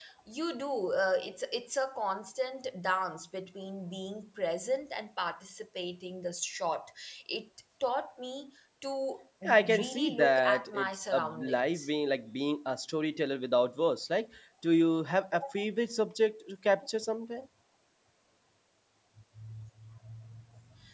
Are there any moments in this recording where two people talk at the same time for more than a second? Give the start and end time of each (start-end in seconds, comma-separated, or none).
9.4-11.9